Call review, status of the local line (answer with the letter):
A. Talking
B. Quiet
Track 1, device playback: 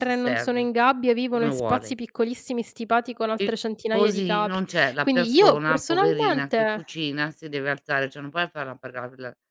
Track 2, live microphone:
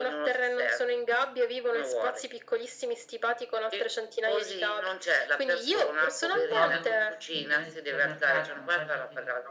A